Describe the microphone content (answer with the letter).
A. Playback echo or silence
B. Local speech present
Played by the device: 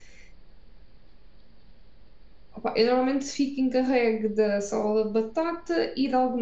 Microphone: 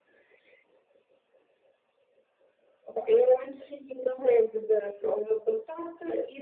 A